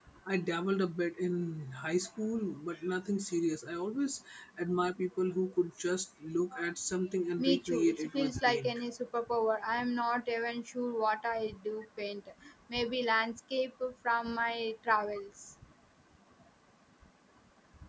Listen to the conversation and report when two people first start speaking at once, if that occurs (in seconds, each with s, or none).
7.4 s